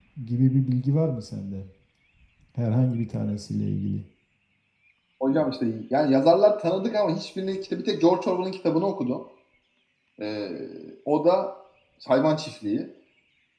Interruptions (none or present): none